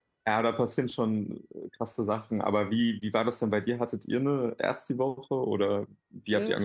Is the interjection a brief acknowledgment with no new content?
No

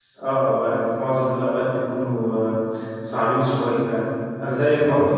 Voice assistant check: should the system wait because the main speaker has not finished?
Yes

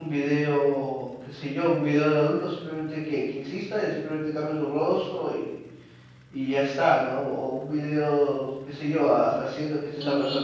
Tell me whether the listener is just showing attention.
No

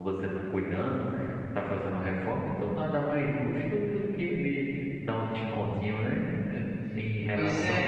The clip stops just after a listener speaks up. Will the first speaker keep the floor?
Yes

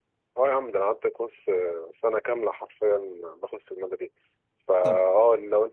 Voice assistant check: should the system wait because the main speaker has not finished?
Yes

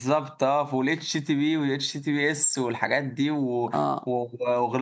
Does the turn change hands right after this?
No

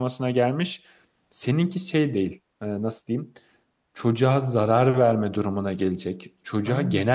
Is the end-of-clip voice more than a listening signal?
No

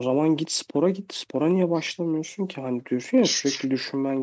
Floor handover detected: No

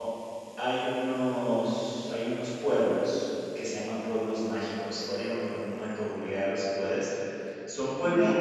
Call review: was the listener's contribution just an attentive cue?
Yes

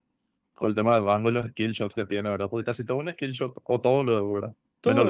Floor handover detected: Yes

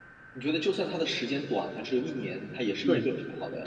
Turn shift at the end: Yes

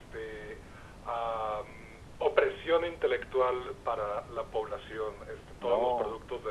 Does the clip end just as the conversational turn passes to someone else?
No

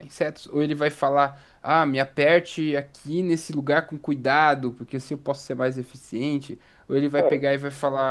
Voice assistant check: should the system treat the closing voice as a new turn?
No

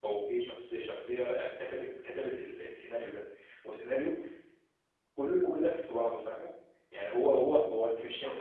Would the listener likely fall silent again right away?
No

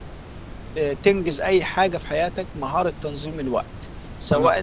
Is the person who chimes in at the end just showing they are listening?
Yes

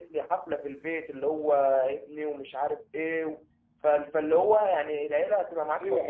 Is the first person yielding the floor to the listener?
Yes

